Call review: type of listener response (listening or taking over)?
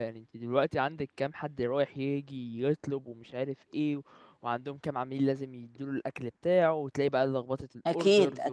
listening